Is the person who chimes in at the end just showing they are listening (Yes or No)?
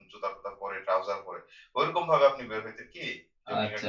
No